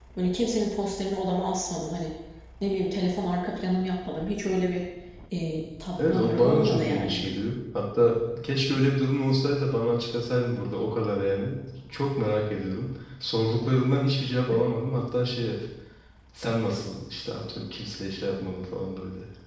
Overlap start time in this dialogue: 6.0 s

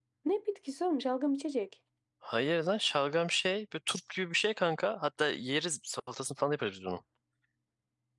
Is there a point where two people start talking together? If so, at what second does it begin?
none

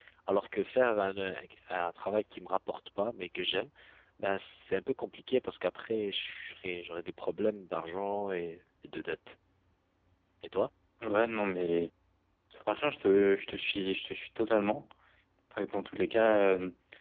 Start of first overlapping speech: none

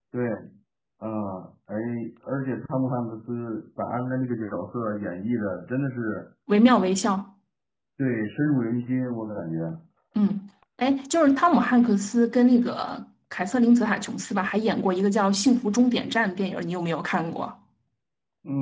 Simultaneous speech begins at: none

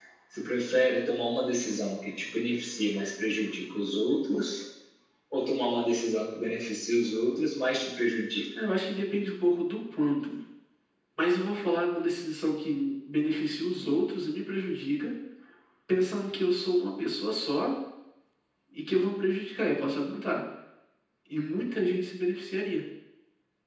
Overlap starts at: none

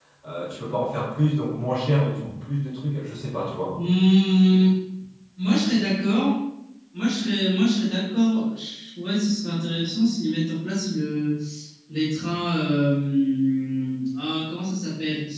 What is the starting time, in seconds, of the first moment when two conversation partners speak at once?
none

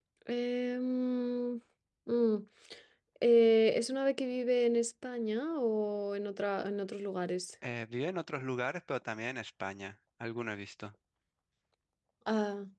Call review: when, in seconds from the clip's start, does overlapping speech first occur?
none

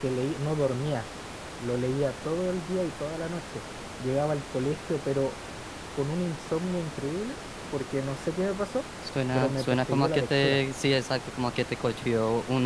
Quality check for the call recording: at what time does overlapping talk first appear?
9.3 s

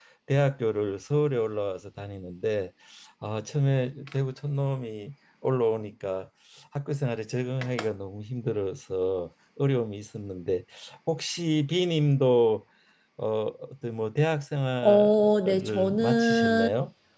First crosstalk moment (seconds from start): 14.8 s

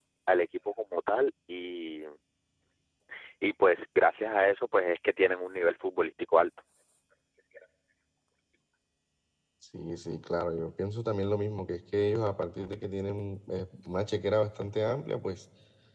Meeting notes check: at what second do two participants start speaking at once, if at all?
none

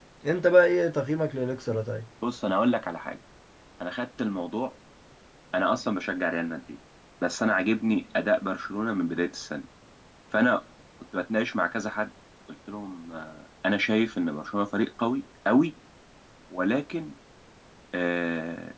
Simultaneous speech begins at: none

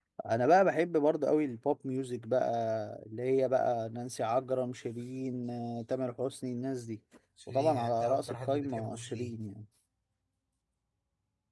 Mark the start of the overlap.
7.5 s

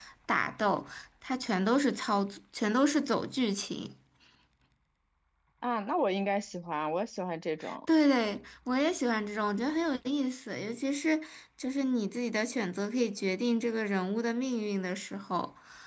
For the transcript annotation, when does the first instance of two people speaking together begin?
none

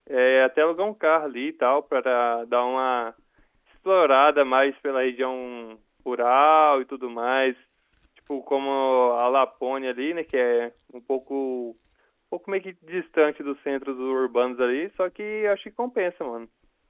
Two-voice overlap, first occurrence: none

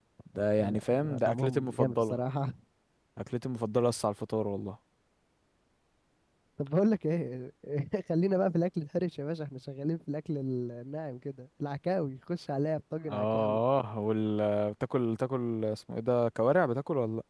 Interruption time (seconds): 0.6 s

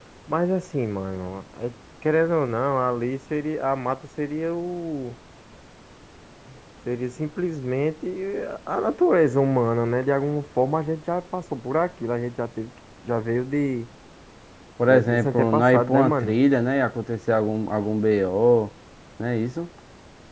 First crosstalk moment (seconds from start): 14.9 s

